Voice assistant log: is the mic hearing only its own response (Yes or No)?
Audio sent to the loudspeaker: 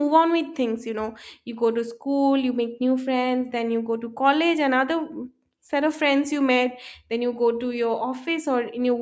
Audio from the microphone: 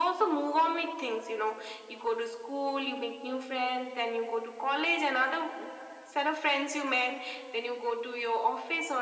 Yes